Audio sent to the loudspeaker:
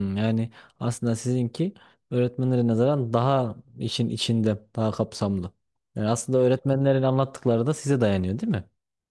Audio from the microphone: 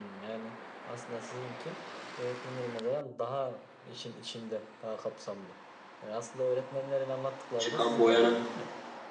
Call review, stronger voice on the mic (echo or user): user